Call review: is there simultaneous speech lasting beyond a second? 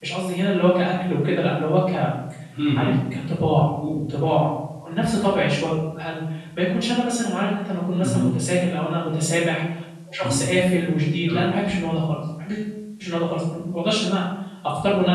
No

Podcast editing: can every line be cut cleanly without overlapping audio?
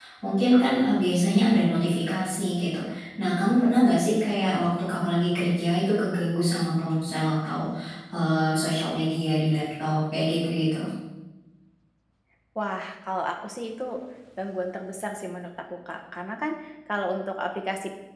Yes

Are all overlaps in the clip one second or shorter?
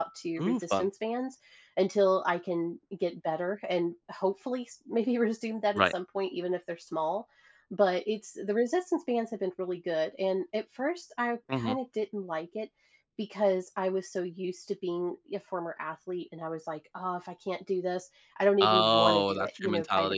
No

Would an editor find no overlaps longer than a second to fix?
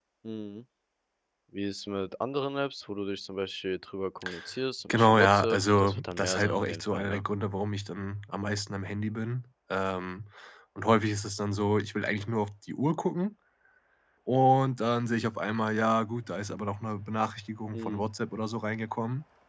No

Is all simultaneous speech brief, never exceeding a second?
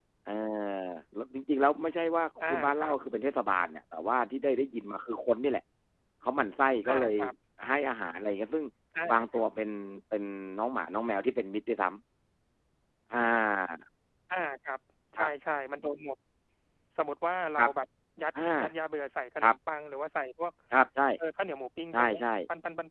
Yes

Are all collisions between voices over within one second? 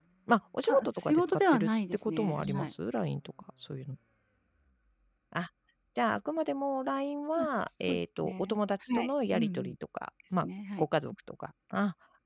No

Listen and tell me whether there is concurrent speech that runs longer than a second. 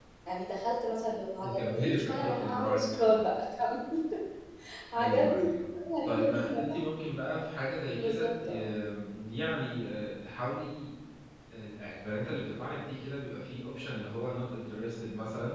Yes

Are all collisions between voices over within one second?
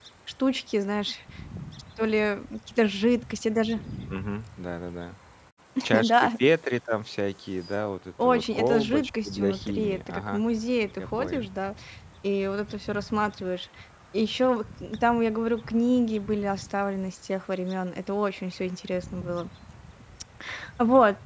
No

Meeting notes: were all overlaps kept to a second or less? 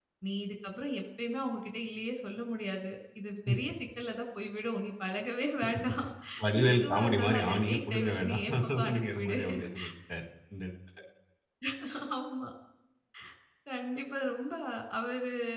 No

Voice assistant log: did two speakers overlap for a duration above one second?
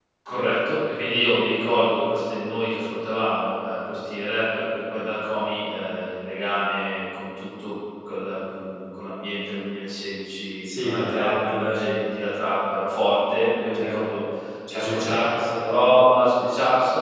Yes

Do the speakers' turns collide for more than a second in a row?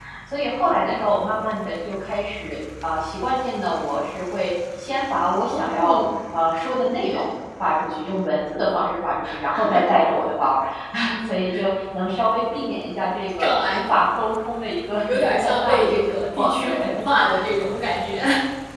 Yes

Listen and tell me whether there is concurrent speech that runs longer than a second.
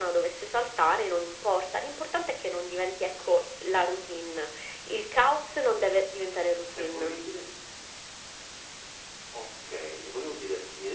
No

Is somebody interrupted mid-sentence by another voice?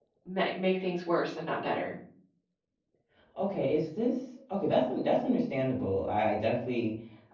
No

